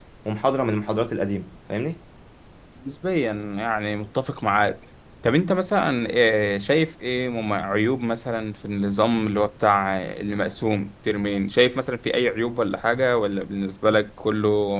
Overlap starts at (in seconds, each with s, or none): none